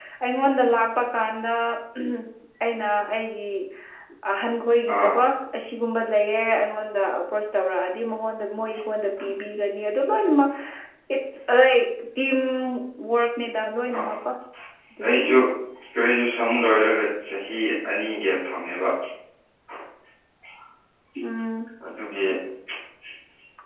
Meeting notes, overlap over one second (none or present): none